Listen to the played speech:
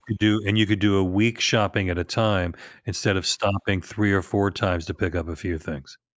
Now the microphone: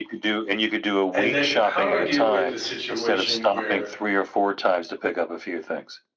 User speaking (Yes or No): Yes